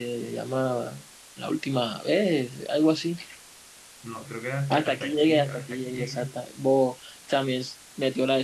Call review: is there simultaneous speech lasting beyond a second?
Yes, from 4.7 s

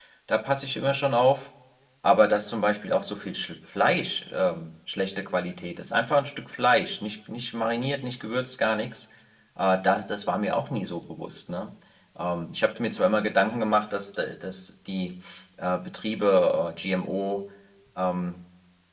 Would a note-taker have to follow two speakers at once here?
No

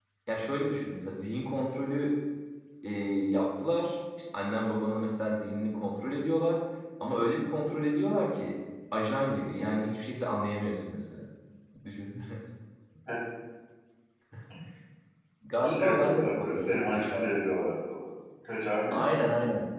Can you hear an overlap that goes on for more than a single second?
Yes, from 15.6 s

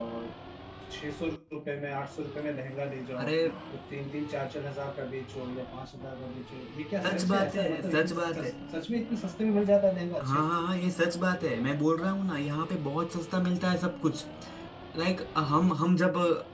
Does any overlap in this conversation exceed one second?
Yes, from 7.0 s

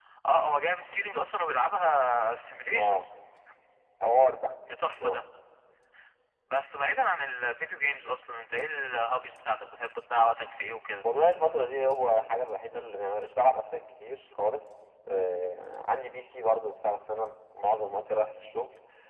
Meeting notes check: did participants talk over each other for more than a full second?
No

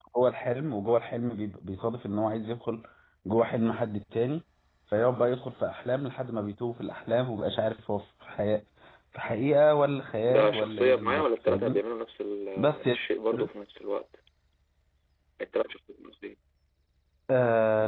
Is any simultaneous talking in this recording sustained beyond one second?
Yes, from 10.3 s

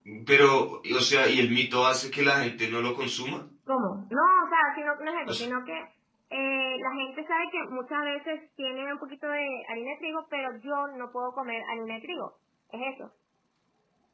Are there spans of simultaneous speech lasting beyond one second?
No

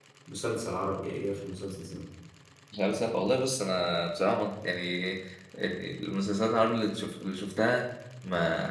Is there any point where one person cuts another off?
No

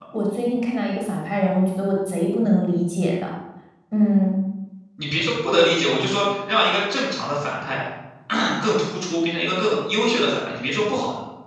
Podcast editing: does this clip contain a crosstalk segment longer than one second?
No

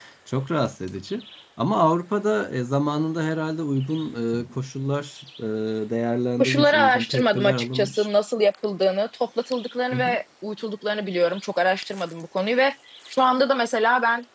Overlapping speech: Yes, from 6.4 s

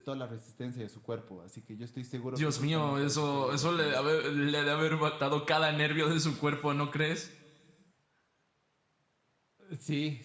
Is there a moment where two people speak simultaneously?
Yes, from 2.4 s

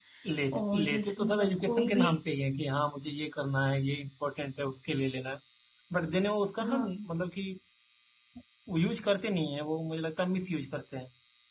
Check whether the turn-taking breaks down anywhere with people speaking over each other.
Yes, from 0.6 s

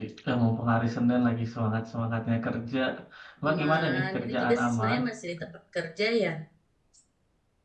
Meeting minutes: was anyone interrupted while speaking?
Yes, from 3.5 s

